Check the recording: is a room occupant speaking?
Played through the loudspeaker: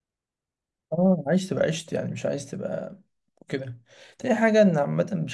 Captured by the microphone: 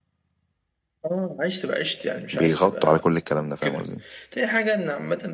Yes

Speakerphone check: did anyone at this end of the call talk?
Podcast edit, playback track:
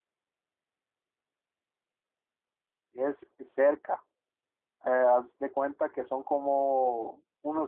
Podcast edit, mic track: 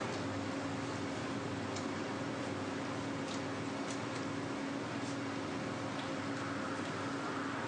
No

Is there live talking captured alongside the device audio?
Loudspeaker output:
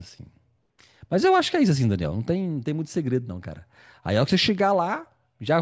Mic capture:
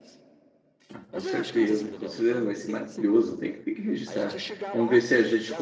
Yes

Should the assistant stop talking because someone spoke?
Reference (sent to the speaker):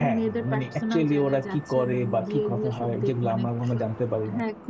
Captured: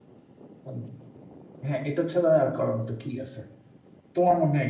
Yes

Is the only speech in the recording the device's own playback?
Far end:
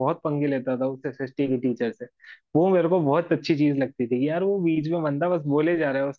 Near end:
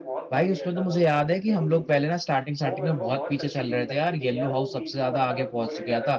No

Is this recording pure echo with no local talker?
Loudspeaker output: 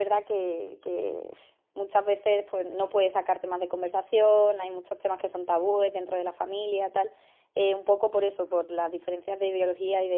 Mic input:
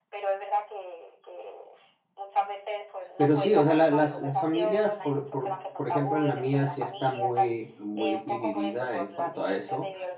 No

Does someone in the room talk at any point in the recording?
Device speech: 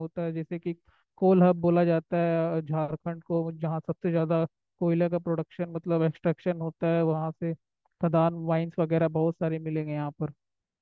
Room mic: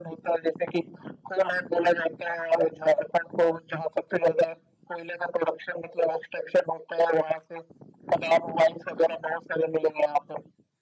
No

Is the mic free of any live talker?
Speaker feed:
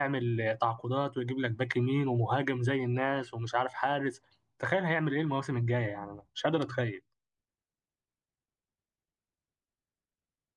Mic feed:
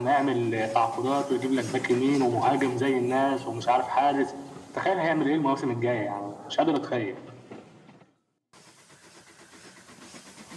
Yes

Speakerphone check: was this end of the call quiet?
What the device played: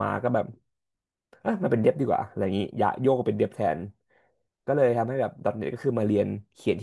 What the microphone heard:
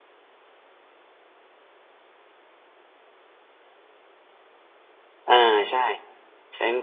No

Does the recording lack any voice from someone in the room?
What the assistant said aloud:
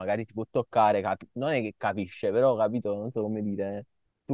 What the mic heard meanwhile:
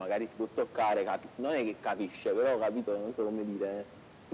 Yes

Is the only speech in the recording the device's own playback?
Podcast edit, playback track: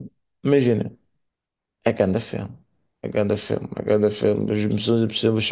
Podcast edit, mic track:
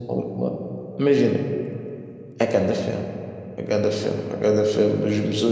Yes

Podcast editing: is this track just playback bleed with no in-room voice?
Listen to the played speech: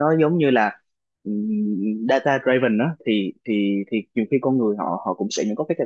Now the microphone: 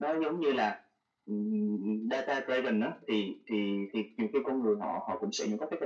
Yes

